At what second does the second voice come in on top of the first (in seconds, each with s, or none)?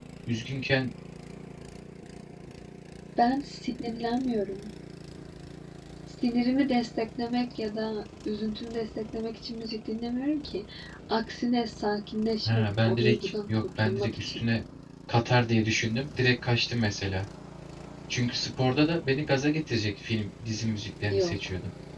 12.4 s